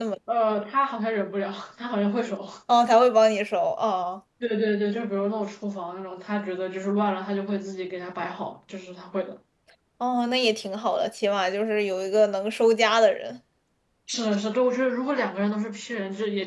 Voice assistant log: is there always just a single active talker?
Yes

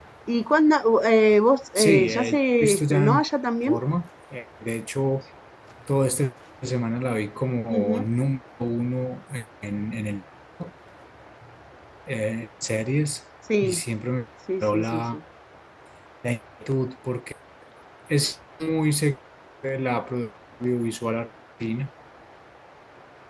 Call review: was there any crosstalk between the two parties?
Yes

